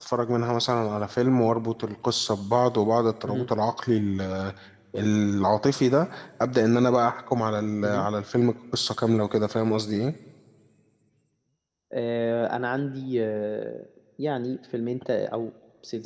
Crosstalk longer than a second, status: none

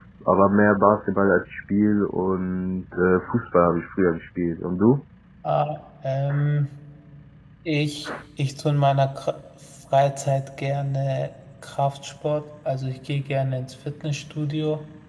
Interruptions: none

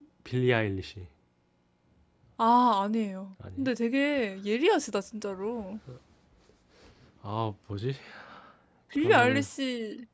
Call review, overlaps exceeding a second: none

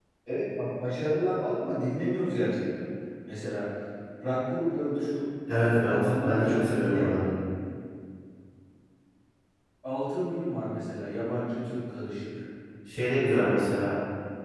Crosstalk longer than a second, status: present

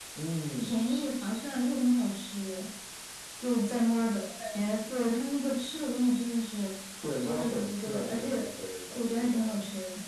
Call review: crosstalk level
present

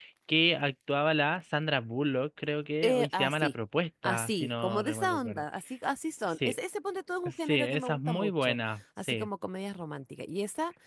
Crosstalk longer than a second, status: present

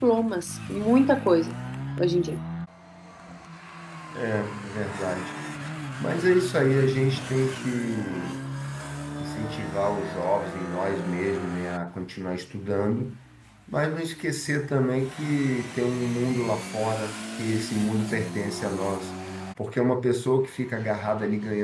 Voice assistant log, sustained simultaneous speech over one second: none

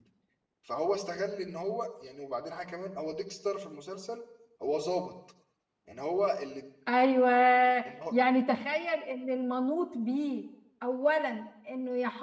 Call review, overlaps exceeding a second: none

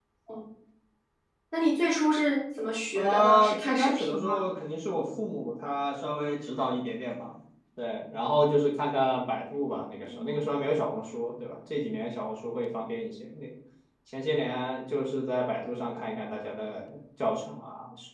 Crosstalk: present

